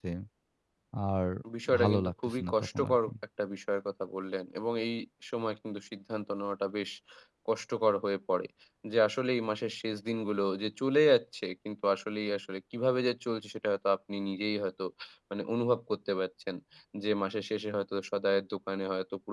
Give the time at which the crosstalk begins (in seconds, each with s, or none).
1.8 s